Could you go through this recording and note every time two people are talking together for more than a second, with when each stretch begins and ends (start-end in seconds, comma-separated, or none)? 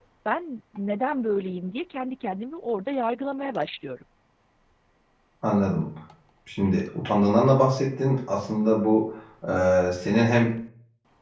none